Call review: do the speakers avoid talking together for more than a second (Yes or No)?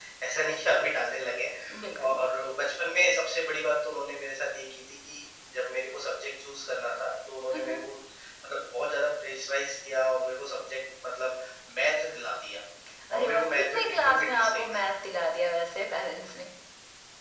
No